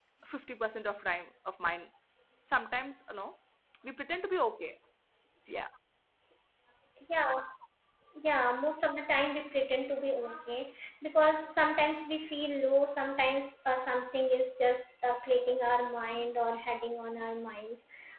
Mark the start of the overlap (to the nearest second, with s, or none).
none